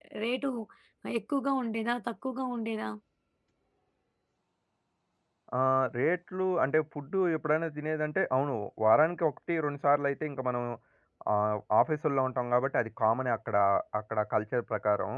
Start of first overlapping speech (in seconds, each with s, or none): none